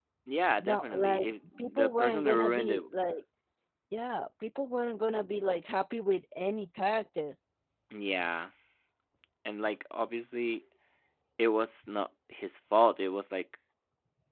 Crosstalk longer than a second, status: present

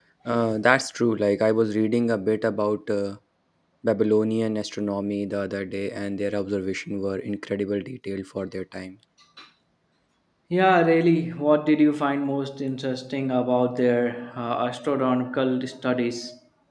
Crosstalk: none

